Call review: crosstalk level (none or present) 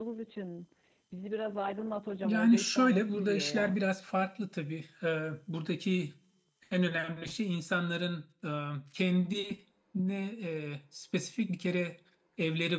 present